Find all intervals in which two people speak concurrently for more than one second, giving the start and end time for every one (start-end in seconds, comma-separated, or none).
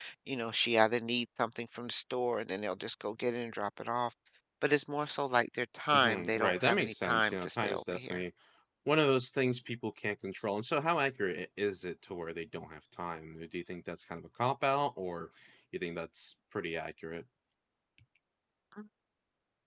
5.9-8.2